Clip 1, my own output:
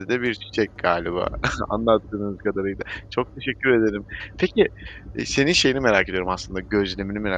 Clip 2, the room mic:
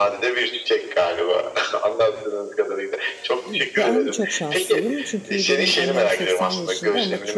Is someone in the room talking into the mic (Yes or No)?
Yes